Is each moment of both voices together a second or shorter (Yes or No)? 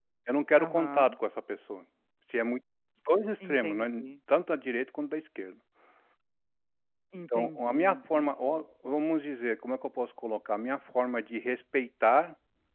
No